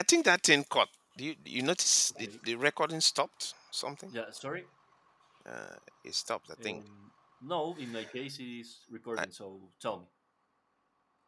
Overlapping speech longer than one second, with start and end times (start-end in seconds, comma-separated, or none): none